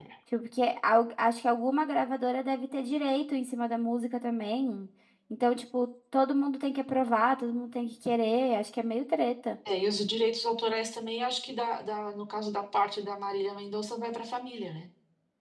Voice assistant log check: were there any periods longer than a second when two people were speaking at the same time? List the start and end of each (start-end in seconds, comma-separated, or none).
none